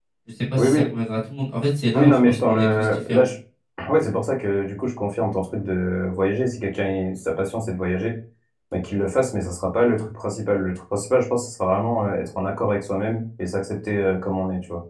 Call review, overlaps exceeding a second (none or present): present